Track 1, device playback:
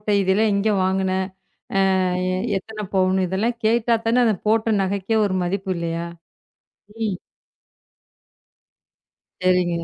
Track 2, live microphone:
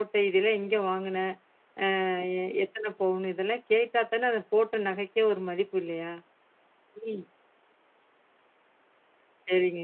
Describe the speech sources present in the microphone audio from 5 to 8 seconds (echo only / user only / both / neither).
echo only